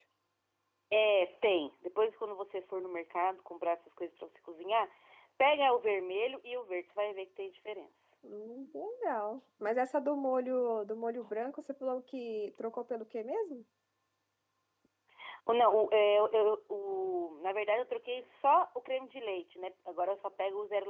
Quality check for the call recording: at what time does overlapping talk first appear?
none

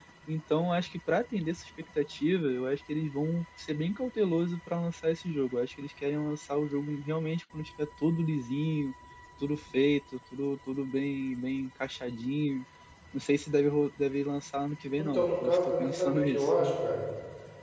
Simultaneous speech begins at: 15.0 s

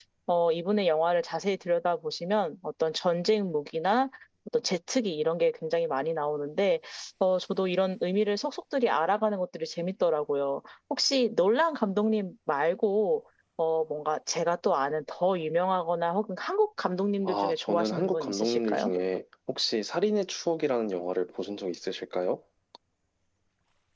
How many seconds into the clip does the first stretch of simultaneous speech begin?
17.2 s

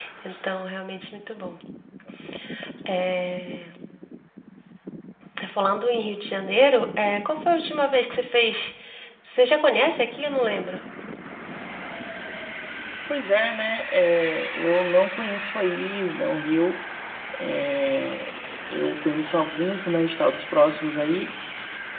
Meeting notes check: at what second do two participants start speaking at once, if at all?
none

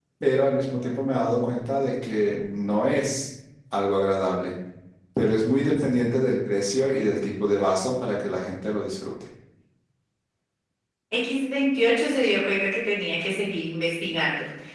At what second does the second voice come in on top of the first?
none

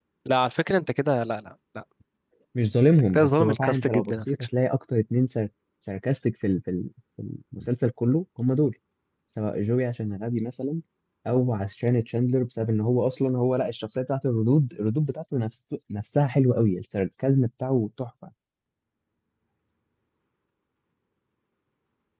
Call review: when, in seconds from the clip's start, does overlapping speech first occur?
3.1 s

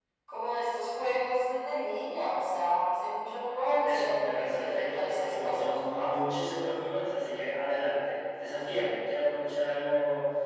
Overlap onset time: 3.8 s

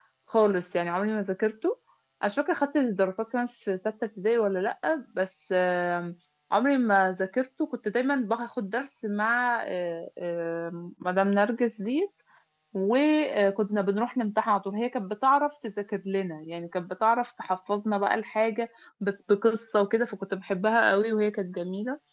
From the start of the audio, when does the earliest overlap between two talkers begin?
none

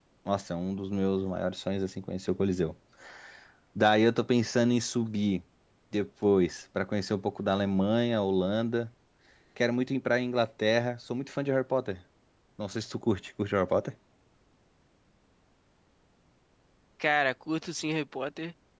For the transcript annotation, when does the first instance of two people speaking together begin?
none

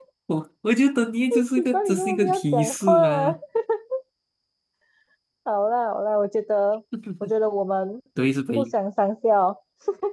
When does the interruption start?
1.6 s

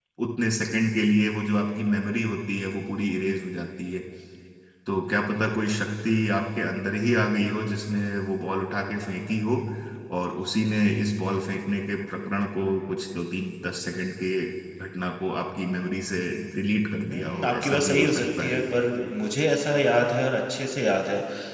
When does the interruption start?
17.1 s

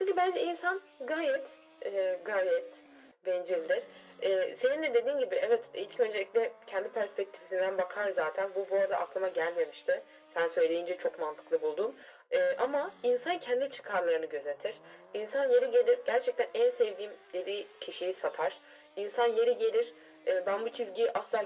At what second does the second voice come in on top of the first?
none

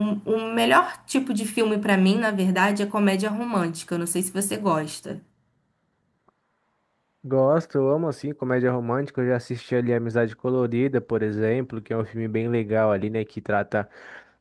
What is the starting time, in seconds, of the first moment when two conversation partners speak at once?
none

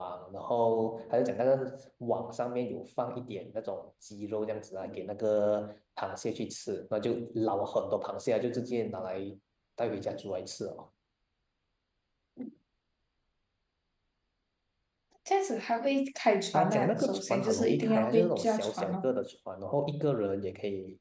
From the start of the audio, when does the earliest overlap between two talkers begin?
16.5 s

